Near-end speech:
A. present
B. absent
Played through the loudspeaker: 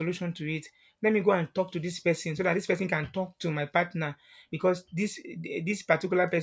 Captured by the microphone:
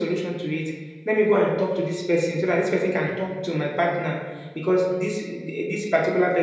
B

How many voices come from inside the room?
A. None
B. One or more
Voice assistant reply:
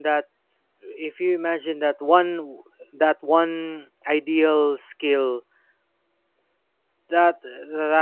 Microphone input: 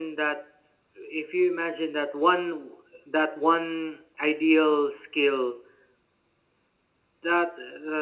A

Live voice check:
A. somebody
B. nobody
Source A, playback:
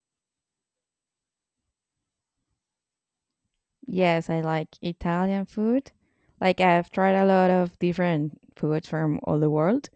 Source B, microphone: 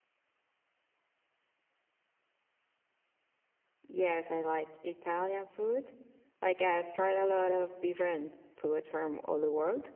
B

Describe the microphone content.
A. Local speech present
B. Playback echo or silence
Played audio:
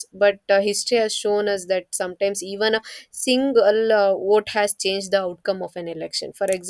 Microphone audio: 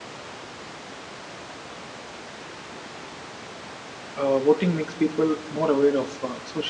A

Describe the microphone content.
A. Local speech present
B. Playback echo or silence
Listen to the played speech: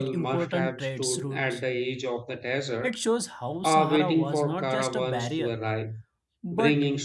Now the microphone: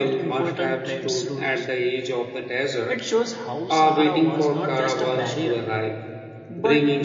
B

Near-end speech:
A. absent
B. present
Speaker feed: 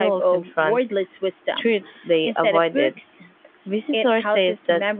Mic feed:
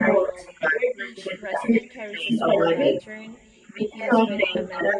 B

